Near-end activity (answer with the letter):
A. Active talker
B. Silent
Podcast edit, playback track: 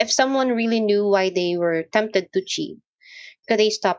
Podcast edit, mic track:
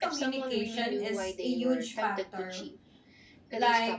A